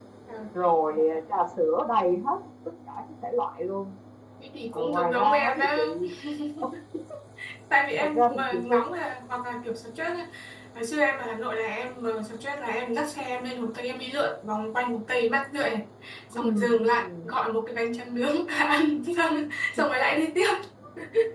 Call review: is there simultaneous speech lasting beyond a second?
Yes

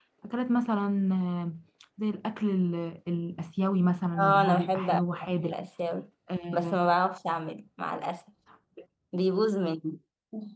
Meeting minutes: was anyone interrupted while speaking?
Yes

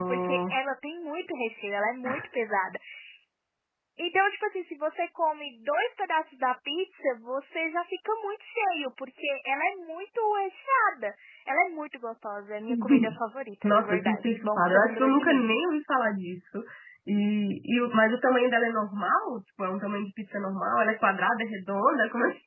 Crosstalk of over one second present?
Yes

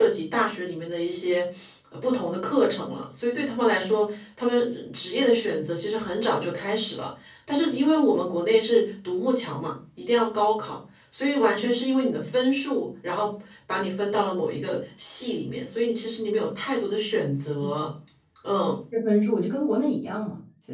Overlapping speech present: No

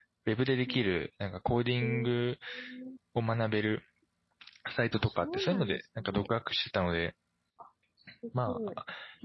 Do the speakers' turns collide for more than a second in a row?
Yes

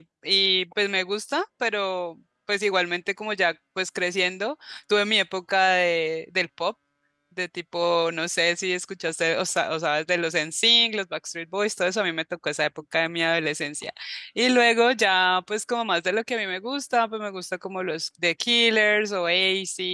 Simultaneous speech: No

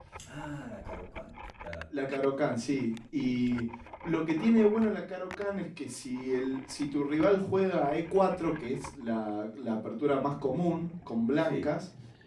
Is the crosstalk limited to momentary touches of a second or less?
Yes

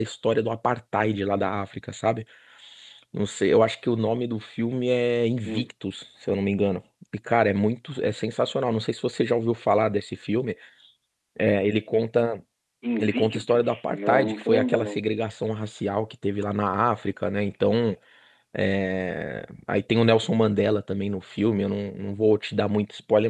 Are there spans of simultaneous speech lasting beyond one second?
Yes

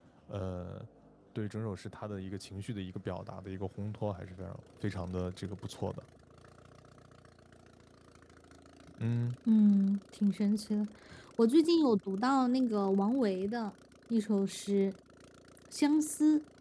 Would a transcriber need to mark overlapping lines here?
No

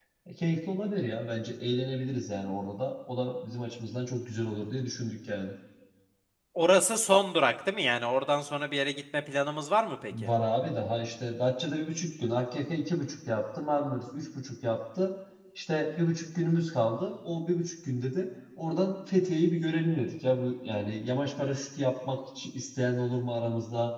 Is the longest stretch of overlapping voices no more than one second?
Yes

